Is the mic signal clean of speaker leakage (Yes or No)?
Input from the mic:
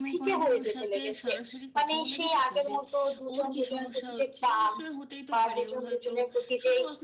No